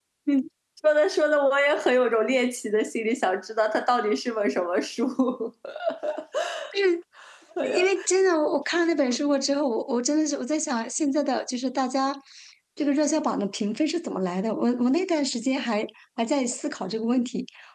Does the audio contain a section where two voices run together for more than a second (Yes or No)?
No